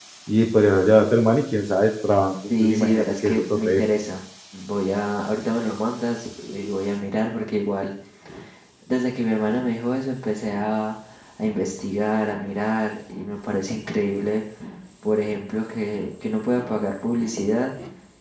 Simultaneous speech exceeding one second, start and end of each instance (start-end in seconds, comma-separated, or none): 2.5-3.8